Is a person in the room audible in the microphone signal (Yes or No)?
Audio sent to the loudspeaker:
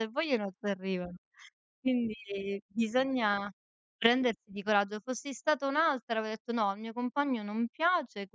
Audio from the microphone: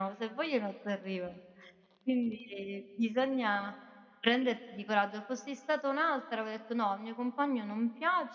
No